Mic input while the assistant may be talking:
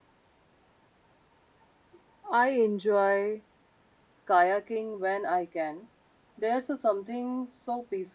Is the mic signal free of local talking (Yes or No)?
Yes